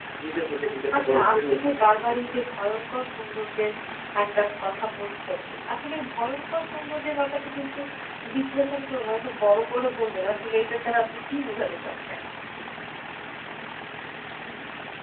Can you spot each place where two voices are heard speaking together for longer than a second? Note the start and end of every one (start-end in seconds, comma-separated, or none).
0.9-2.4